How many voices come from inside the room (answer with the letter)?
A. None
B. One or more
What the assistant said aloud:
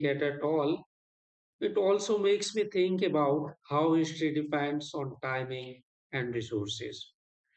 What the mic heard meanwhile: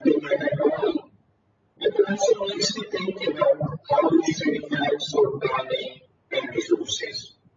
A